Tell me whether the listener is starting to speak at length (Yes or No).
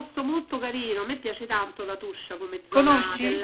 No